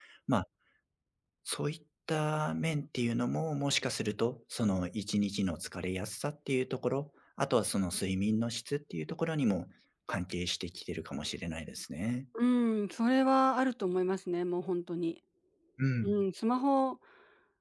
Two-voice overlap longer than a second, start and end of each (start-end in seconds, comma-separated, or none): none